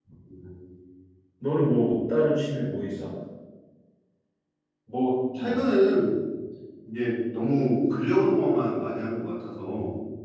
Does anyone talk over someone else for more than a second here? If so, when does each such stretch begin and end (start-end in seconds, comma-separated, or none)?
none